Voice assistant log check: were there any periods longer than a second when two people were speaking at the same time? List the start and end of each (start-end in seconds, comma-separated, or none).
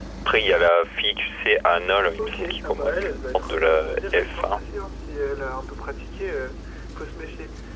2.2-4.6